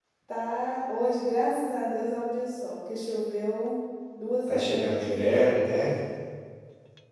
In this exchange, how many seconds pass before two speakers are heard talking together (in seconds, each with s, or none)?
4.5 s